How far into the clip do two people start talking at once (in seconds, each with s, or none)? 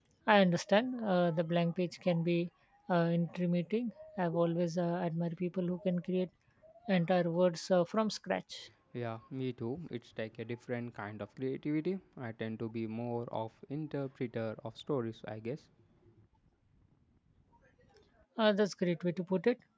none